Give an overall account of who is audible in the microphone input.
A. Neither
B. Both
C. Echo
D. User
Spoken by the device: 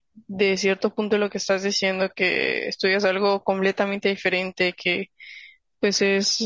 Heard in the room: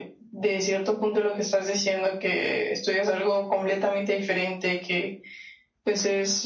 C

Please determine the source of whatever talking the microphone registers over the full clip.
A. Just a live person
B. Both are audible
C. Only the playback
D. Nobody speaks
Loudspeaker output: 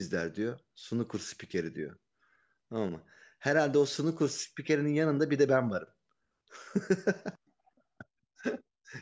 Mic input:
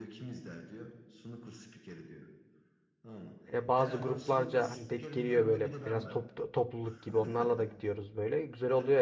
B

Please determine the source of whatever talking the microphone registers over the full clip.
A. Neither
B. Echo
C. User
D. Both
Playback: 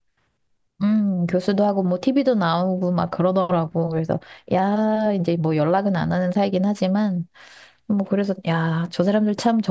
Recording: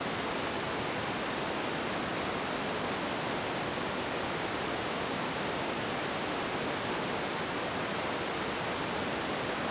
A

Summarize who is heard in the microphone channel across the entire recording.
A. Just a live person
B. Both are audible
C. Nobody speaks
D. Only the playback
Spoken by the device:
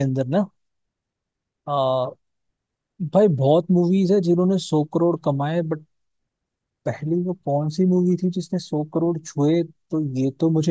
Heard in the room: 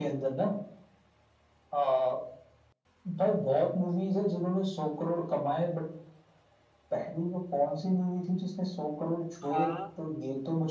B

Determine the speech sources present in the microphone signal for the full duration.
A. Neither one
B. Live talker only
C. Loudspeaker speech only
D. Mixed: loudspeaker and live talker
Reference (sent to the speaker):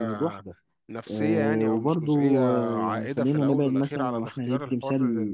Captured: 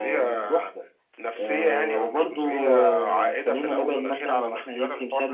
C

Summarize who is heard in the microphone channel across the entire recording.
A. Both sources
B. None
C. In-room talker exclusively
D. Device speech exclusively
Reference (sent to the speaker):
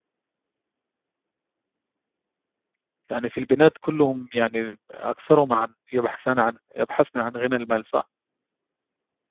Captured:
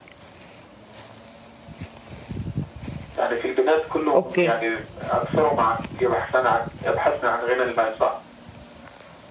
A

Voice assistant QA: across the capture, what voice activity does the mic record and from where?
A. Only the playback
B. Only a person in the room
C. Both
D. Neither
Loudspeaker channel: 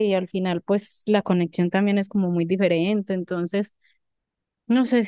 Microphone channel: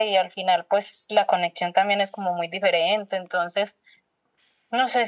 A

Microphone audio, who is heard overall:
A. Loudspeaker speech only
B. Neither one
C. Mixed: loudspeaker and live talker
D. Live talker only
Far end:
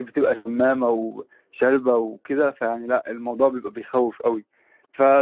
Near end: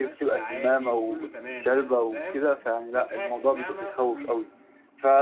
C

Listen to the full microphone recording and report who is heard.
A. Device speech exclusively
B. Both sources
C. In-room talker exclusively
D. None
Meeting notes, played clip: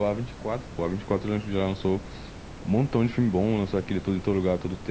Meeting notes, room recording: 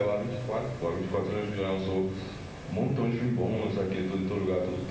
A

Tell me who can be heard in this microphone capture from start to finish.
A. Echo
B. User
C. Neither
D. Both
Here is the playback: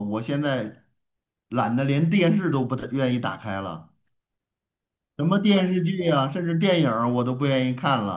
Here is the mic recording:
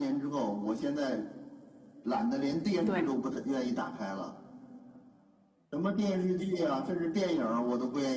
D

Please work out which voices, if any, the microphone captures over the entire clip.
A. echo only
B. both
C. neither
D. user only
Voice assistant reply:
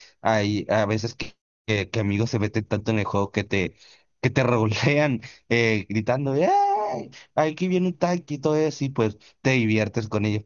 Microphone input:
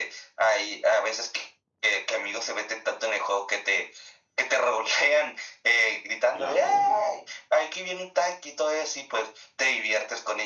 B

